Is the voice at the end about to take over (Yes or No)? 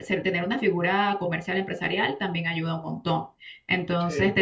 No